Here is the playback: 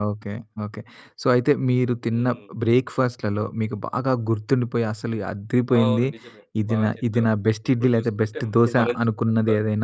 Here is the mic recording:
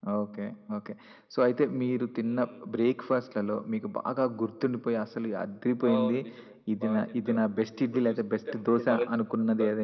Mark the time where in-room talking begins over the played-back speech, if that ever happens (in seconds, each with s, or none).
none